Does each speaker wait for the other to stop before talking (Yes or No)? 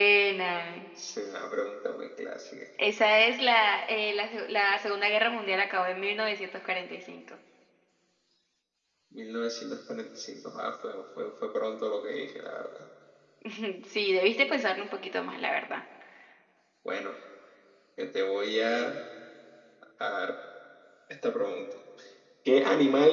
Yes